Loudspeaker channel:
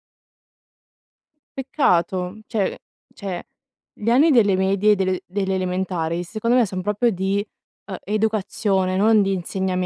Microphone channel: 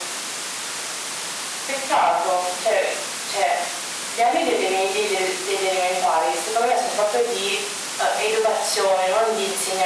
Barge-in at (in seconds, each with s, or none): none